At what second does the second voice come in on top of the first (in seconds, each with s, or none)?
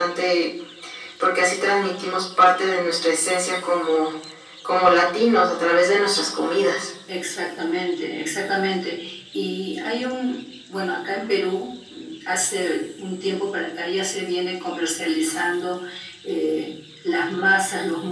none